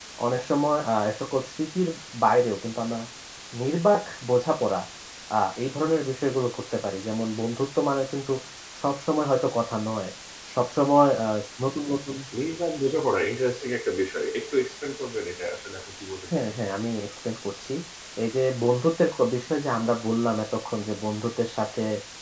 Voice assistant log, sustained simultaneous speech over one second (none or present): none